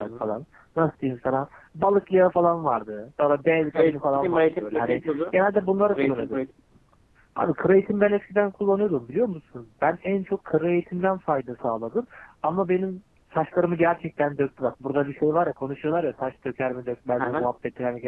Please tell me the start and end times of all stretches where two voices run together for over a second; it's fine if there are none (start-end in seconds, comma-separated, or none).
3.7-5.2